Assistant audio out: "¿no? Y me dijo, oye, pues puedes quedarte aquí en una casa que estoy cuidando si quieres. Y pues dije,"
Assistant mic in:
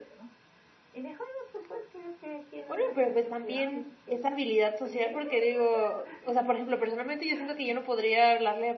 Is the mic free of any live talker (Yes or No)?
No